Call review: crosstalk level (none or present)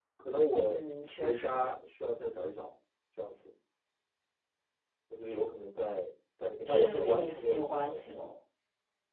present